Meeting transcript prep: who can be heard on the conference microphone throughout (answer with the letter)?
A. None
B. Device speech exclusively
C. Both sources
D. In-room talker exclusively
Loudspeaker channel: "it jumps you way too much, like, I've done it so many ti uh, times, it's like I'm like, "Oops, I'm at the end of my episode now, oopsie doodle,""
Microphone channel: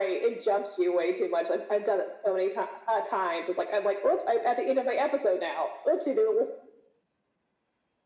B